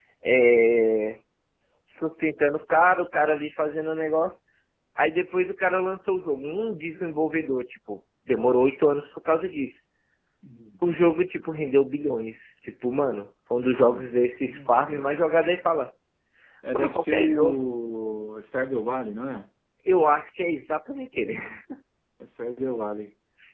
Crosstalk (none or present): present